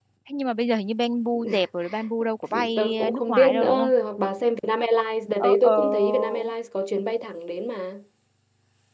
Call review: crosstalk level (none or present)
present